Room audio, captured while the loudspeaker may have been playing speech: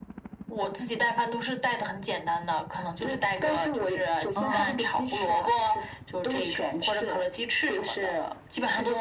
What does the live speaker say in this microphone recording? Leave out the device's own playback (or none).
啊，